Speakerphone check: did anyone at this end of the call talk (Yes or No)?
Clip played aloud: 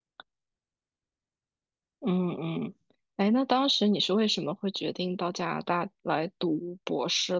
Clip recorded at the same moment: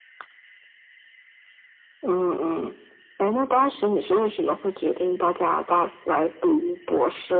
No